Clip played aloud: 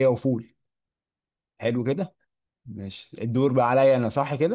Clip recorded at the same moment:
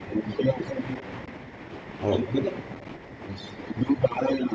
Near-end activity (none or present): present